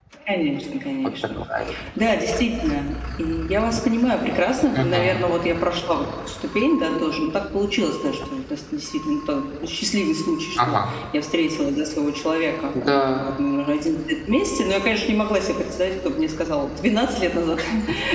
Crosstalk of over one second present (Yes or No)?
No